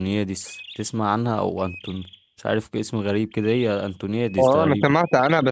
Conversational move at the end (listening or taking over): taking over